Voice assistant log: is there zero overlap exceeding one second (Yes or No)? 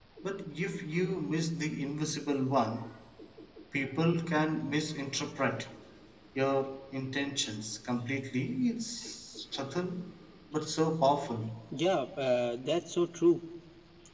Yes